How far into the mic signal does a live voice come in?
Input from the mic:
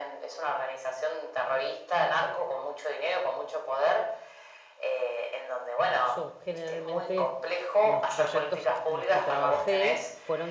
6 s

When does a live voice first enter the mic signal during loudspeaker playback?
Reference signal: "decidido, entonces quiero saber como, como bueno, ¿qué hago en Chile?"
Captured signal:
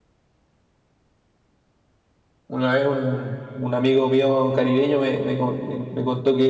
2 s

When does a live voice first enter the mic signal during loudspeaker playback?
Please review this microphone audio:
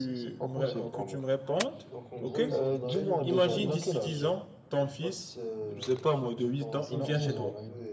1 s

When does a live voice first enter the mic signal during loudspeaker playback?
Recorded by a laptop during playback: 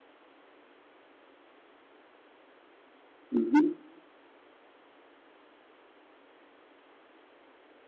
3 s

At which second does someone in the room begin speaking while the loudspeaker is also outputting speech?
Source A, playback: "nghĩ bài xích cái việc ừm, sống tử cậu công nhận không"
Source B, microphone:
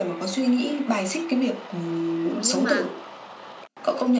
2 s

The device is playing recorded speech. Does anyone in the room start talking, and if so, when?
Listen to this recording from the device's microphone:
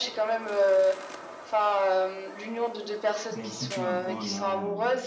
3 s

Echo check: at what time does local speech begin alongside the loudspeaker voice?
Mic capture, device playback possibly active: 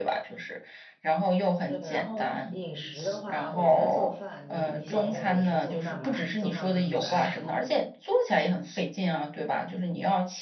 2 s

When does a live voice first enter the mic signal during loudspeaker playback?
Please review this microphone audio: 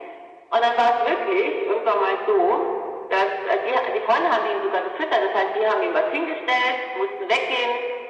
none

